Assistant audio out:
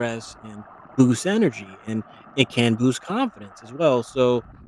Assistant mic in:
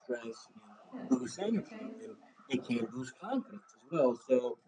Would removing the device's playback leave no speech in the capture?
No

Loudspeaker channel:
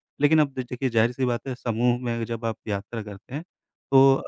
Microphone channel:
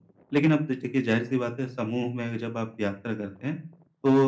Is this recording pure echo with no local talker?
Yes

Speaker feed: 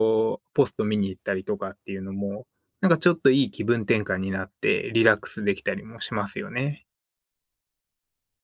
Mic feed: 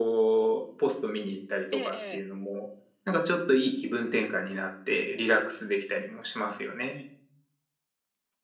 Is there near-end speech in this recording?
Yes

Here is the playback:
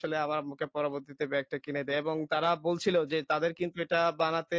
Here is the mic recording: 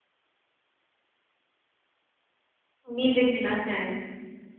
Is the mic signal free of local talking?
No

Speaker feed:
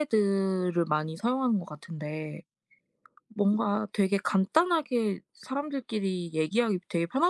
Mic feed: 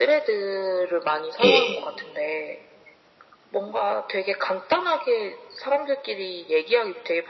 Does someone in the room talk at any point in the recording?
Yes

